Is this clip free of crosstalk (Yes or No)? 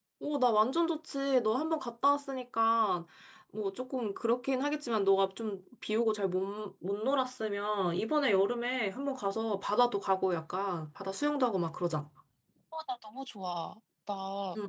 Yes